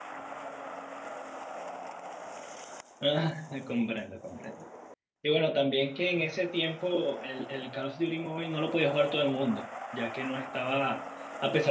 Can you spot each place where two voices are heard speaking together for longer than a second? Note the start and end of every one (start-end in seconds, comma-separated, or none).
none